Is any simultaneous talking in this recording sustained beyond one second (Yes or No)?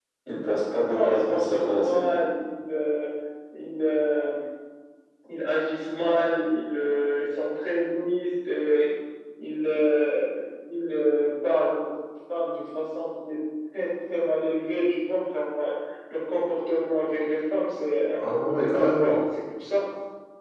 Yes